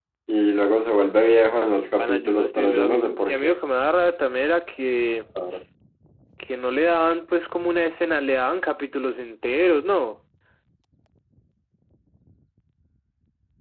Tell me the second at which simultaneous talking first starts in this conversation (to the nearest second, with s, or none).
2 s